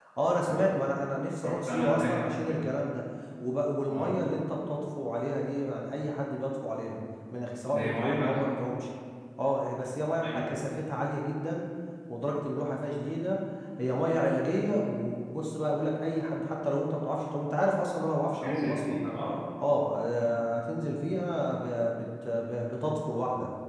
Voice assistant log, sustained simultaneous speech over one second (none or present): present